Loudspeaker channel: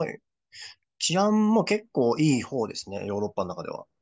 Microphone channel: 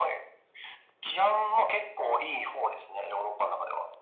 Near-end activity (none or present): none